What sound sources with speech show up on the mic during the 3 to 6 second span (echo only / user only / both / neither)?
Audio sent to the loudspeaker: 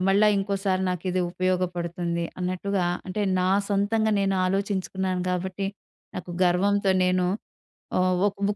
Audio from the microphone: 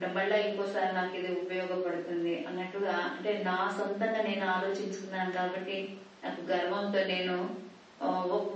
echo only